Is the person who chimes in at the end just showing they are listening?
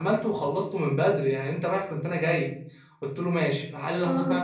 Yes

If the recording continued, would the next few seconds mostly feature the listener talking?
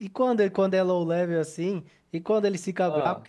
No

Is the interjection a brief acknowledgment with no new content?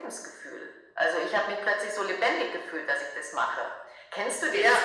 No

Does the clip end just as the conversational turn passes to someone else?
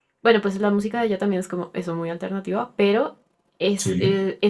No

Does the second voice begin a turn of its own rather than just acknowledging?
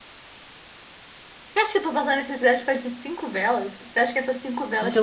Yes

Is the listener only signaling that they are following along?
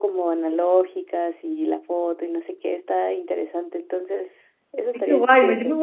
No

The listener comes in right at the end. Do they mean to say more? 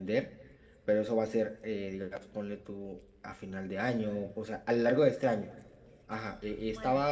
No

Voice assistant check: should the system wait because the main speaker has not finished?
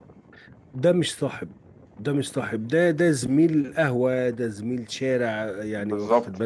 Yes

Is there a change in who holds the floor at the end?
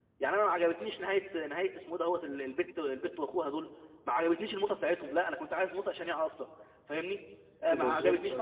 No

